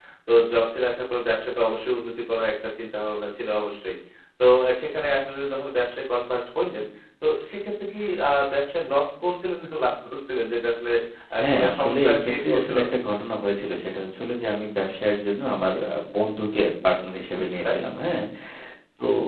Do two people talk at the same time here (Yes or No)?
Yes